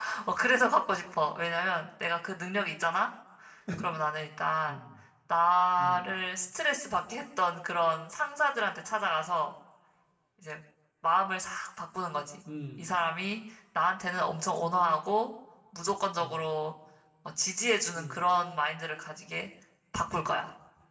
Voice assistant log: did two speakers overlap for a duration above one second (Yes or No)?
No